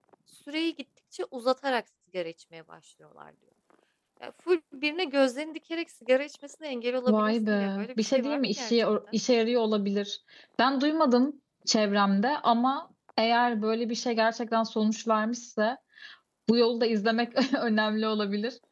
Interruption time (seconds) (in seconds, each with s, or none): 7.1 s